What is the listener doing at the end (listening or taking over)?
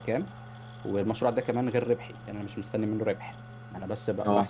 listening